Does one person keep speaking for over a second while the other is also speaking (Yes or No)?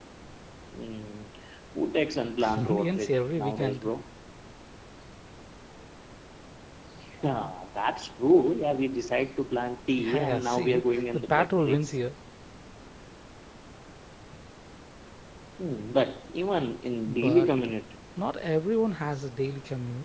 Yes